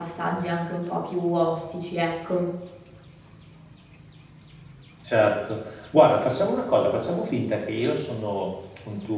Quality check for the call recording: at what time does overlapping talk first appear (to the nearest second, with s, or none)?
none